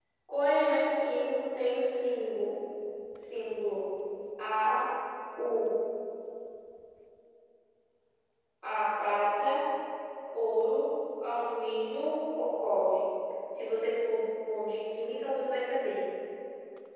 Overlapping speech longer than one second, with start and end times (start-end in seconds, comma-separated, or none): none